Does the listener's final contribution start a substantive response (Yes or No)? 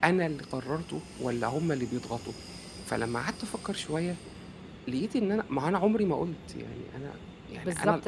Yes